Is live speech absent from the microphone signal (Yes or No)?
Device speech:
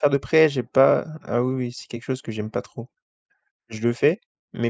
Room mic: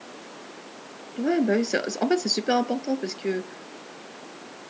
No